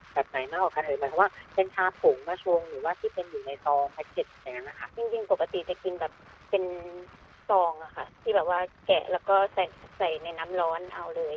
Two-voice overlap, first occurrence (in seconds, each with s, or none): none